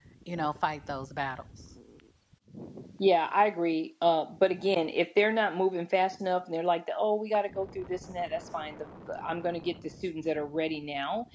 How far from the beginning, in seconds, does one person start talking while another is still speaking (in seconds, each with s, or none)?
none